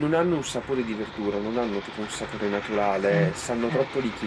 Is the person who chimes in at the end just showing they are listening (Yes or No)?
Yes